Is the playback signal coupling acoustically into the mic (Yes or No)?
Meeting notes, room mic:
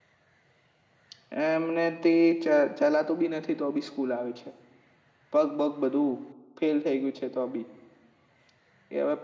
No